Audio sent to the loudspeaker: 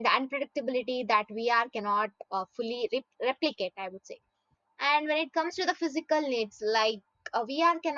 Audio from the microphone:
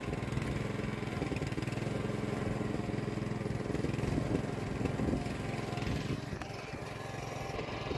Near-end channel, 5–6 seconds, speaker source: neither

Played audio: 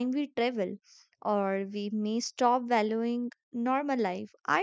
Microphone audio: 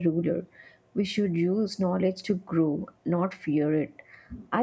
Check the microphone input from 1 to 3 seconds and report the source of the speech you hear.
user only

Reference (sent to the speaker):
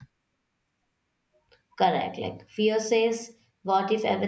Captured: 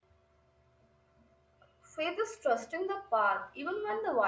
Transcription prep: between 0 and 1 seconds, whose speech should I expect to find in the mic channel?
neither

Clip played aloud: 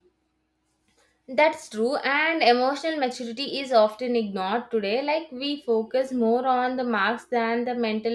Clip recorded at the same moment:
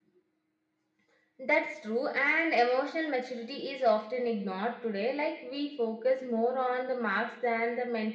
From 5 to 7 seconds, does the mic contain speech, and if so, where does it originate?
echo only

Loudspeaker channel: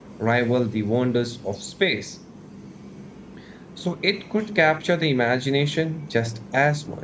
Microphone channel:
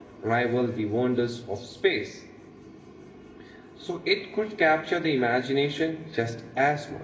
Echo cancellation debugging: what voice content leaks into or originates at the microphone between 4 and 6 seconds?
echo only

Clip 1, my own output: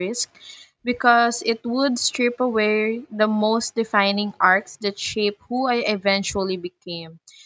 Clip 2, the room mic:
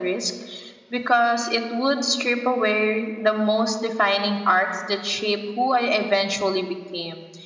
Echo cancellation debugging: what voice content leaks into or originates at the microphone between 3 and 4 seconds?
echo only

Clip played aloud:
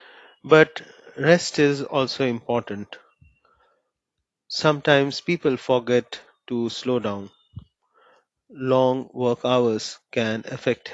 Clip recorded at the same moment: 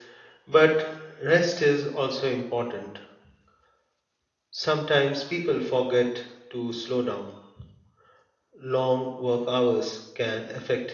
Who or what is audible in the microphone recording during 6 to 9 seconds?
echo only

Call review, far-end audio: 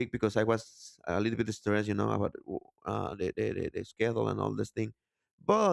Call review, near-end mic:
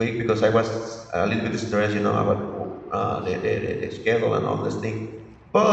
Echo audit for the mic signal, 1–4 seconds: echo only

